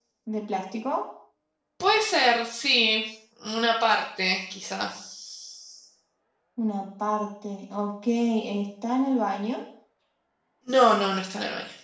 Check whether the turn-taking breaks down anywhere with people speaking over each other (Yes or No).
No